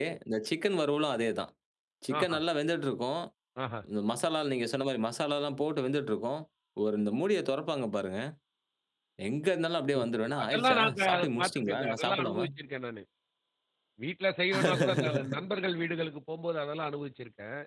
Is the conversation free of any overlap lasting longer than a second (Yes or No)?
No